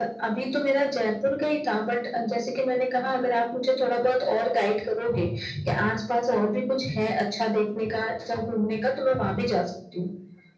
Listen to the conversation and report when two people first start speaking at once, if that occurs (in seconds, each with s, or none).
none